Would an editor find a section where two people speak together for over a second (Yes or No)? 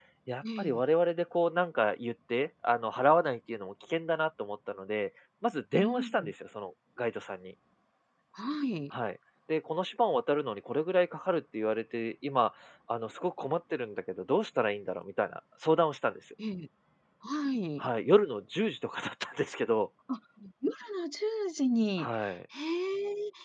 No